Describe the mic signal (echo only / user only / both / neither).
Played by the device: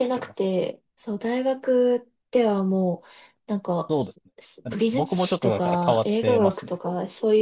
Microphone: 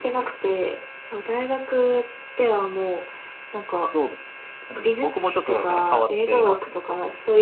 echo only